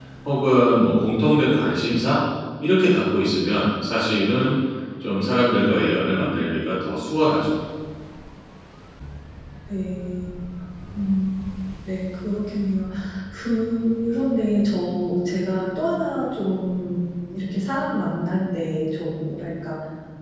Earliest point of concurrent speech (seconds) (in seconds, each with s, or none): none